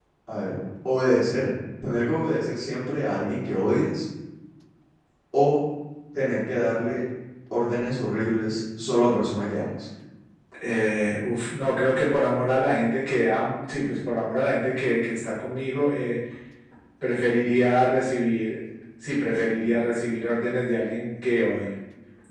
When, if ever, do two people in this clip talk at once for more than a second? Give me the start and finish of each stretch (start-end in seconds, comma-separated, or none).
none